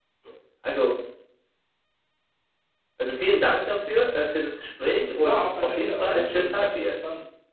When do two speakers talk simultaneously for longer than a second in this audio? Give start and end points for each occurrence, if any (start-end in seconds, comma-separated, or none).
5.2-7.0